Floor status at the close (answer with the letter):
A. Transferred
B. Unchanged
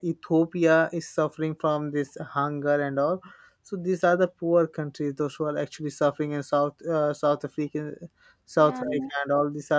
B